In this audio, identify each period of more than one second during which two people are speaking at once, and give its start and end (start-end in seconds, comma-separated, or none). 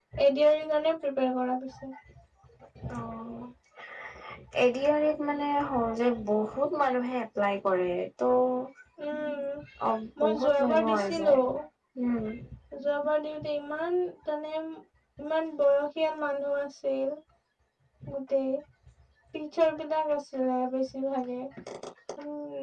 10.2-11.4